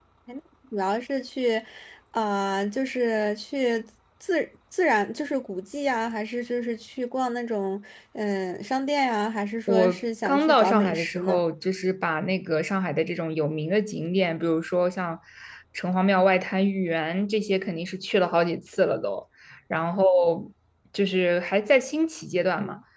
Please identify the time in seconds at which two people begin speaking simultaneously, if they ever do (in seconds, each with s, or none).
9.7 s